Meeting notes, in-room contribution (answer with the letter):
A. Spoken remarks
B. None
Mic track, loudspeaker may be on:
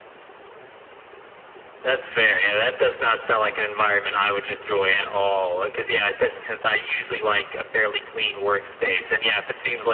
B